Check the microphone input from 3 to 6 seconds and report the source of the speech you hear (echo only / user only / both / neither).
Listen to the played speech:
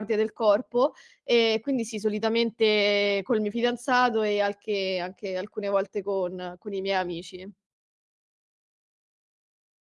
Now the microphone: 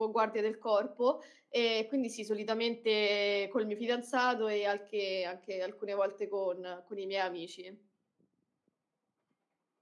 echo only